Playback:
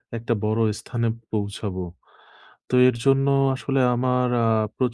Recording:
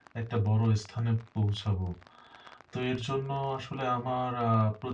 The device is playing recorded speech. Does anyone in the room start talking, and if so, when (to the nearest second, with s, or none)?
none